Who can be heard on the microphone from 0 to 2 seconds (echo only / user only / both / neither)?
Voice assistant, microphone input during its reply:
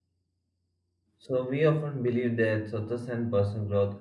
user only